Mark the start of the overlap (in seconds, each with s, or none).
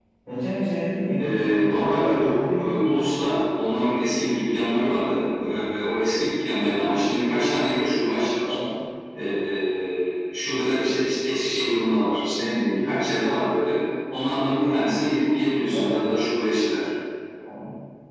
1.2 s